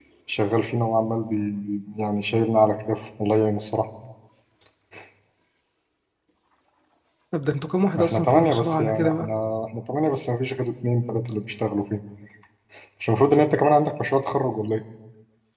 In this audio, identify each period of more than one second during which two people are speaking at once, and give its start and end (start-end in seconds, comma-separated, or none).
8.0-9.3